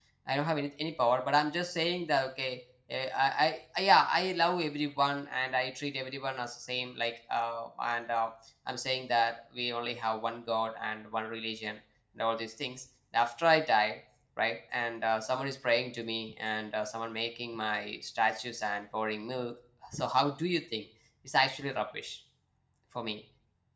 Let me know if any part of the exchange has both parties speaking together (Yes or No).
No